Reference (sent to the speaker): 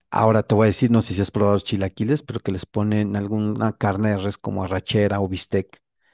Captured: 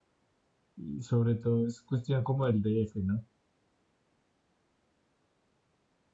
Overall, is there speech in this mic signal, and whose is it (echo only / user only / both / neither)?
user only